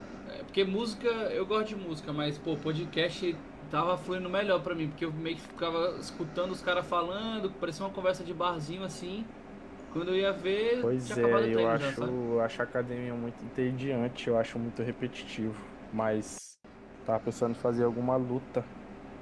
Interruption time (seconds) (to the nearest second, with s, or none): 11 s